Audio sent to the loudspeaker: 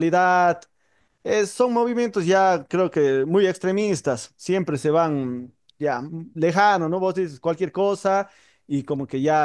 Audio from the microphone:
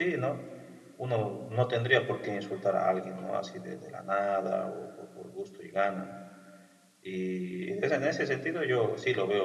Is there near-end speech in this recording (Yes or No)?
Yes